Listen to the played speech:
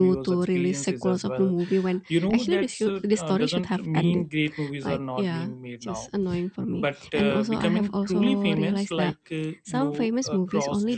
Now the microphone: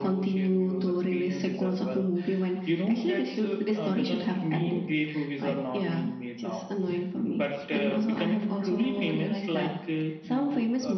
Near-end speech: none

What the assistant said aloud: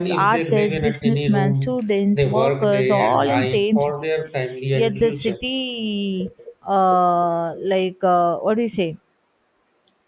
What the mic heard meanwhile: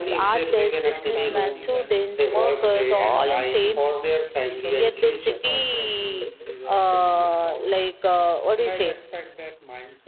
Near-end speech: present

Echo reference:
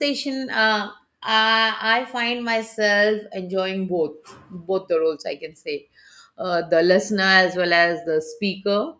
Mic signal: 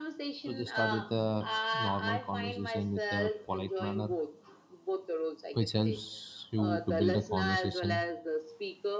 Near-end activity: present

